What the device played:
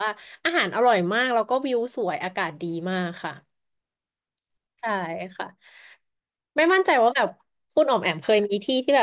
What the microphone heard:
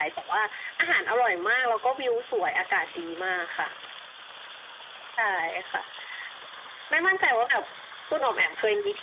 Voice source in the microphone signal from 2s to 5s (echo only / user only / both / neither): echo only